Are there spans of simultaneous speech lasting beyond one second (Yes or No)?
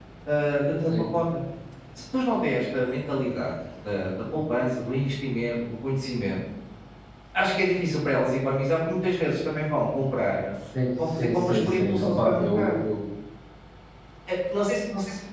Yes